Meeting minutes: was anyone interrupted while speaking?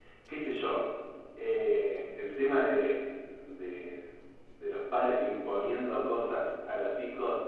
No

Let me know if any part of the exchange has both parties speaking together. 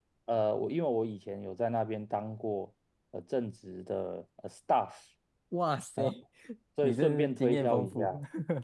Yes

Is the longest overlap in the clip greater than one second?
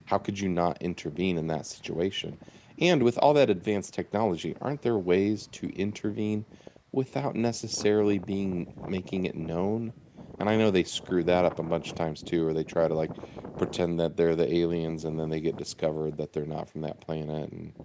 No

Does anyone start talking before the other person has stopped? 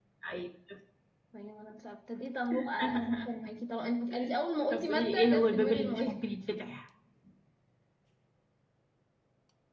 Yes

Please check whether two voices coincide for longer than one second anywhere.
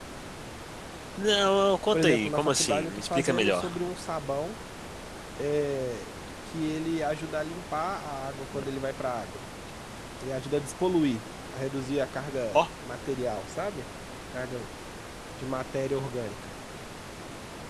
Yes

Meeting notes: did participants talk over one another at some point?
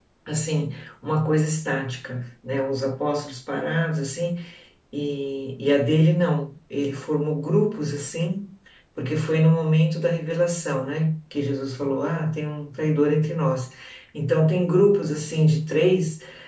No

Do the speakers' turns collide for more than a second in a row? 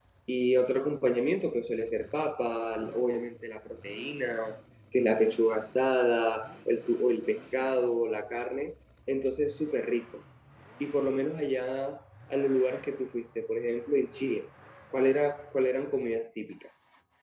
No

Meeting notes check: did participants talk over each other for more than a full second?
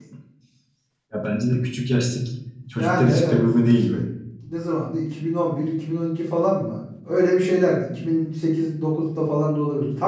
Yes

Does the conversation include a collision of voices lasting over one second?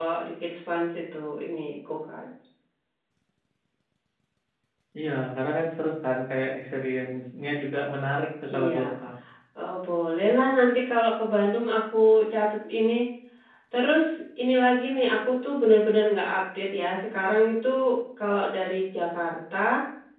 No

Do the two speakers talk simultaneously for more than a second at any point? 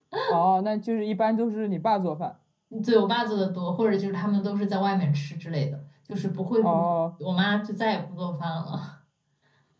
No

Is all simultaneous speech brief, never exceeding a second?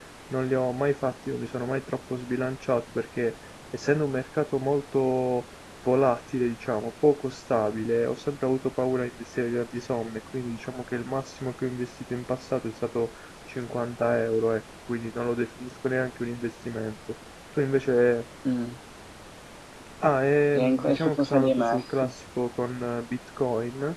No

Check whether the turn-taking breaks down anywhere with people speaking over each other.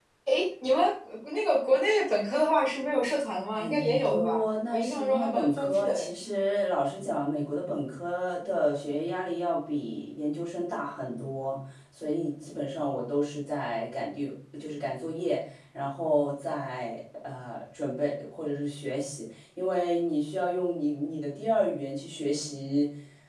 Yes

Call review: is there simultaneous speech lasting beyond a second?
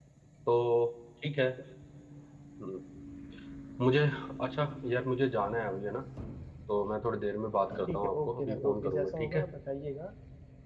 Yes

